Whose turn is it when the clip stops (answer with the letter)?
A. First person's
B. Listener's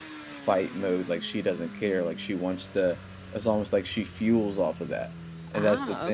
A